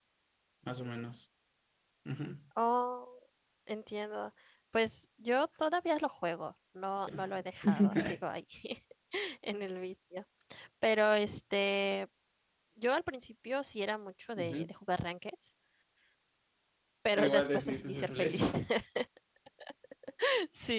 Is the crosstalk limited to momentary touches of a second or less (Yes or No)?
No